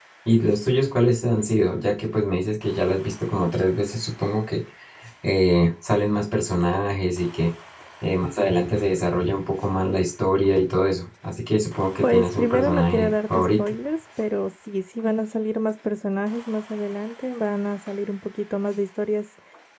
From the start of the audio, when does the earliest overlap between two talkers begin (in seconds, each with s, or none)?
12.0 s